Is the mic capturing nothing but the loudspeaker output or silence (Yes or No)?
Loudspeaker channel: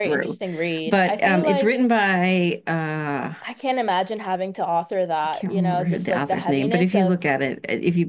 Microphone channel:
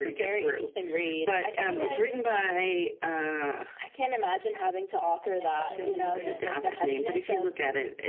No